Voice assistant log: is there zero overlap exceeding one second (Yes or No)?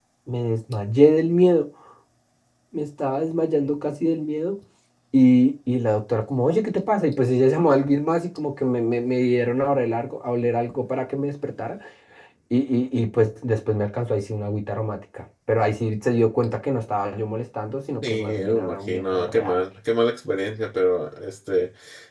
No